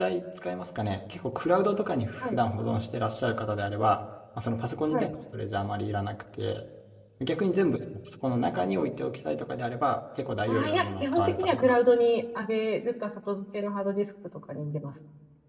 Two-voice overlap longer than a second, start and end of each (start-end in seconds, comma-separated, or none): 10.5-11.7